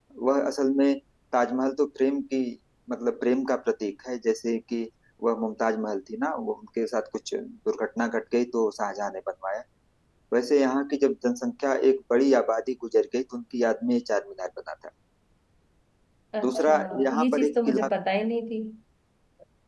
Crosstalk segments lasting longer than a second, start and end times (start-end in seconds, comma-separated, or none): 16.4-17.9